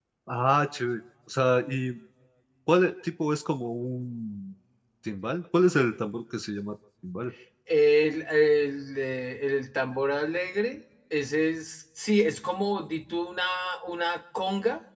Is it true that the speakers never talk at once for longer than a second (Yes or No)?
Yes